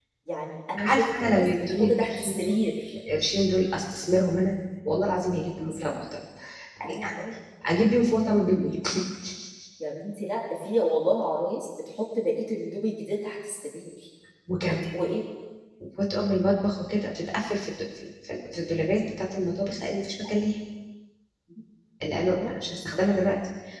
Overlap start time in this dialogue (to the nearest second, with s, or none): 1 s